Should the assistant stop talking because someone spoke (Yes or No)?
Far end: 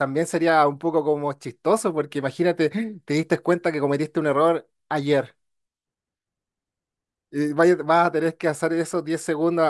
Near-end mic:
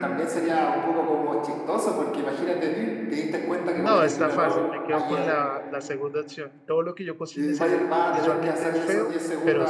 Yes